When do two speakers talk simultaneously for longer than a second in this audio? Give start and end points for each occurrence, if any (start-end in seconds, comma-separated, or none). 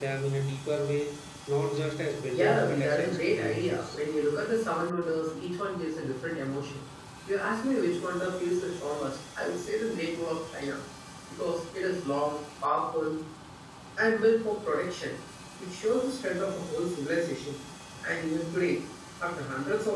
2.3-4.0